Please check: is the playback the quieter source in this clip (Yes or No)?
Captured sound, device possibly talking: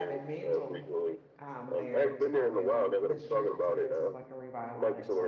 No